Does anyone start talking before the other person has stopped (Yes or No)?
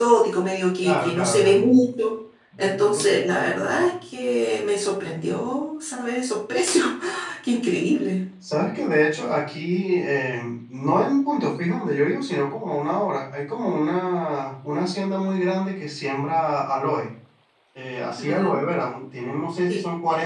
Yes